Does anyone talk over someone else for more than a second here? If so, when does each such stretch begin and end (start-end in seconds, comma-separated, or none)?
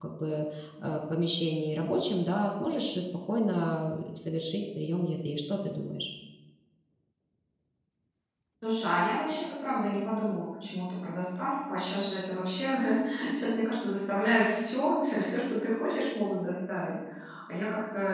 none